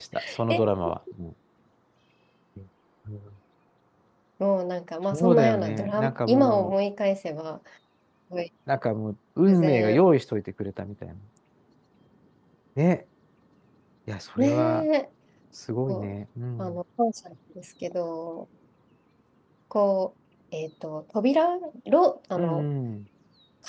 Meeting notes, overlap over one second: present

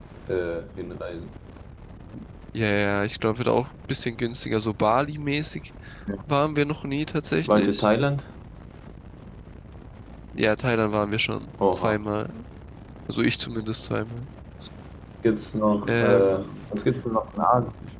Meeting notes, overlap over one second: none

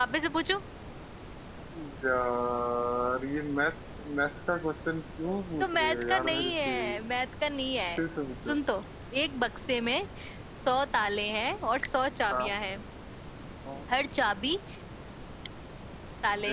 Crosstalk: present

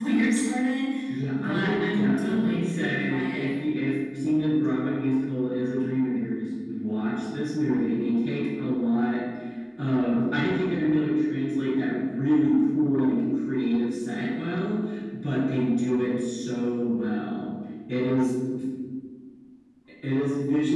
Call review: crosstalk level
present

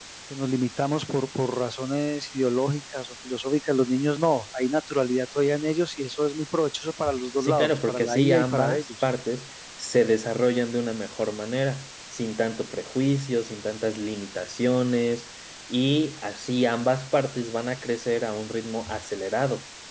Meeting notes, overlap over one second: present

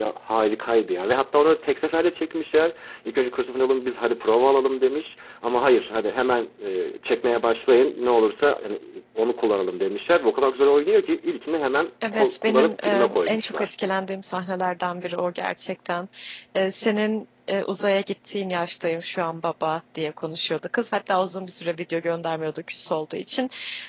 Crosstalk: present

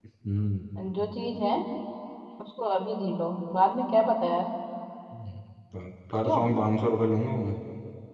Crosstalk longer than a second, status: none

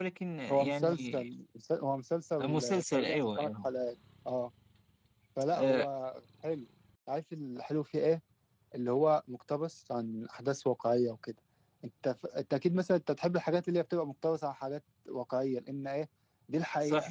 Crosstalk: present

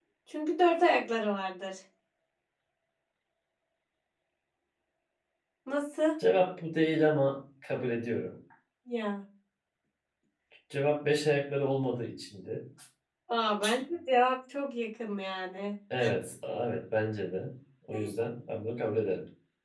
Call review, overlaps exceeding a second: none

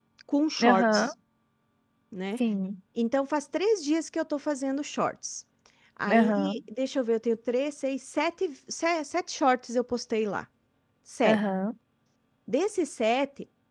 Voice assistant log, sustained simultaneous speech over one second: none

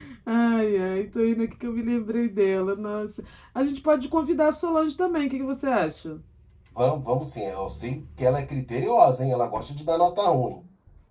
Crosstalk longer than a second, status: none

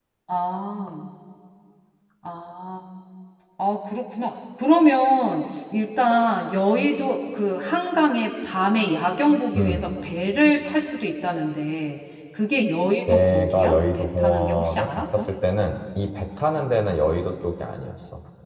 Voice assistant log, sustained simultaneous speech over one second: present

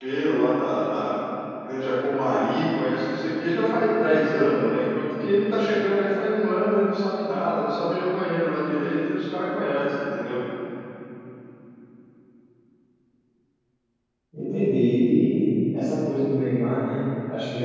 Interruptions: none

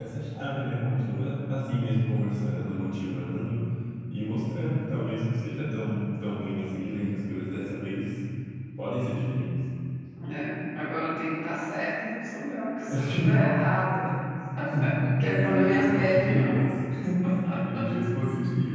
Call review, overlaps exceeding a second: present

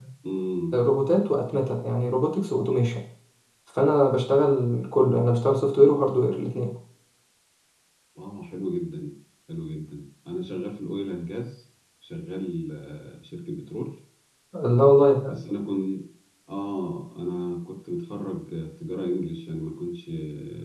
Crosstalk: none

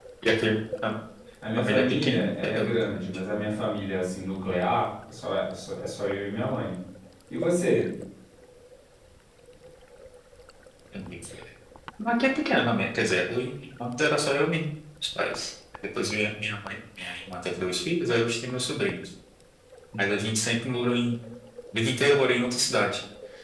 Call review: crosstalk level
present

